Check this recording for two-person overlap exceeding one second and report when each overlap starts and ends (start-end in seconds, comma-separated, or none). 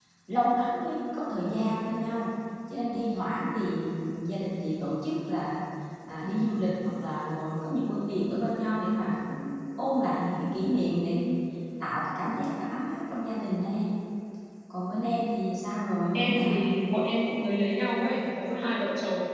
none